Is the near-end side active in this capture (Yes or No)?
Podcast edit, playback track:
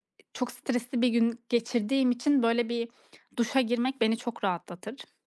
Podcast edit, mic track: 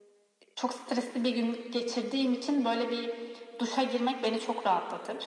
No